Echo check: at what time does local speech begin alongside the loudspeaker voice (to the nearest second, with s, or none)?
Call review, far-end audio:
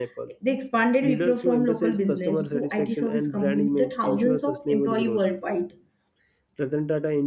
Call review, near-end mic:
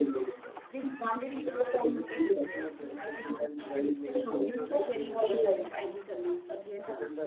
5 s